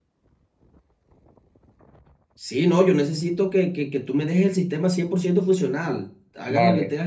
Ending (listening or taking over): listening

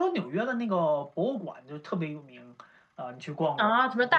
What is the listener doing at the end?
taking over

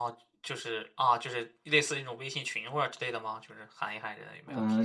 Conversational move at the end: taking over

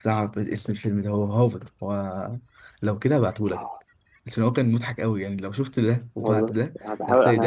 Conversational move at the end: taking over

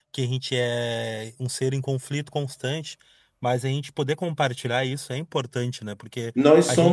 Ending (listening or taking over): taking over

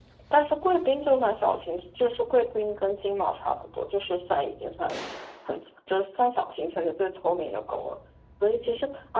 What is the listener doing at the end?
listening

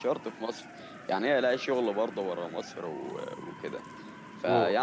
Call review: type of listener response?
listening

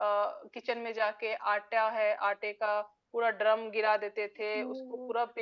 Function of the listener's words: listening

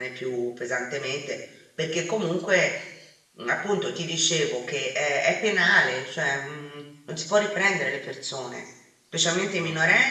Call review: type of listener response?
listening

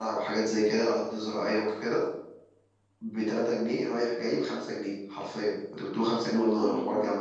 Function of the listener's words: listening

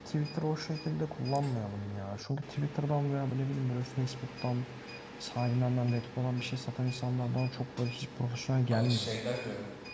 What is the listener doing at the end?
taking over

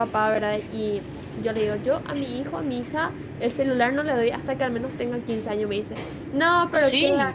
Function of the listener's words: listening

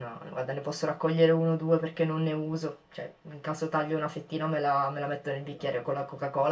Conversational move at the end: listening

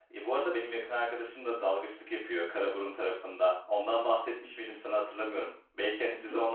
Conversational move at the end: listening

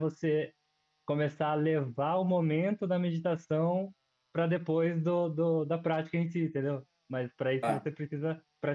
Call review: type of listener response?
listening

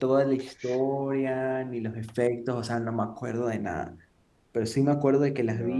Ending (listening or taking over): listening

